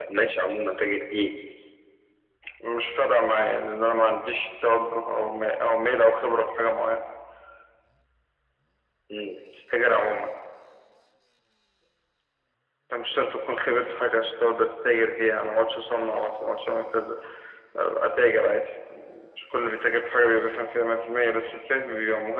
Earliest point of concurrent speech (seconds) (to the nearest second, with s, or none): none